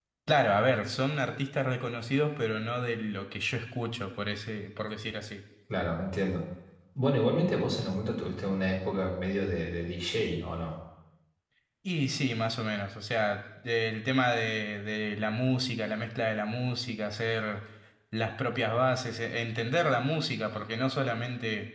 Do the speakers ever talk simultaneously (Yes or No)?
No